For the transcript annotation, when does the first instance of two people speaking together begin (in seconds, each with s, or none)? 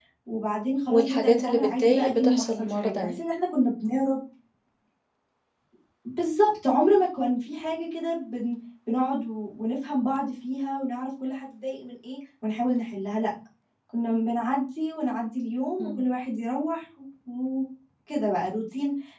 0.9 s